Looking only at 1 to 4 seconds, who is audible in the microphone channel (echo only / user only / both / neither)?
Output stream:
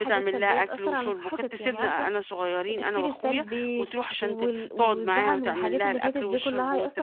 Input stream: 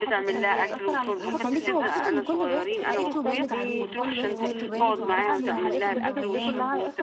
both